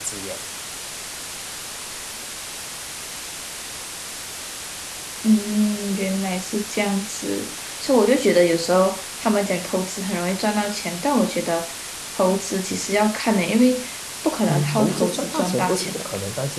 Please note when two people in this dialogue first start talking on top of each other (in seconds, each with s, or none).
14.5 s